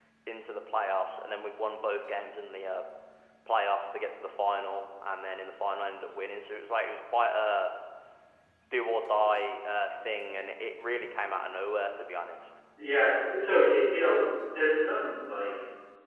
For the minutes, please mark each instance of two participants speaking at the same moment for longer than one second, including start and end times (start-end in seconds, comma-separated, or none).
none